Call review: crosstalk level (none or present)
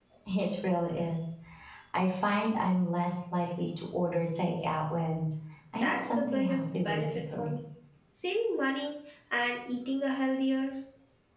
present